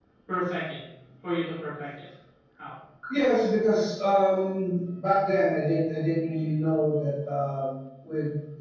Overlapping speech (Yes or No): No